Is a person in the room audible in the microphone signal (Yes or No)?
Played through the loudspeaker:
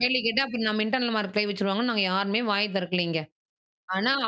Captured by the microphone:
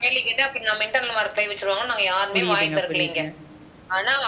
Yes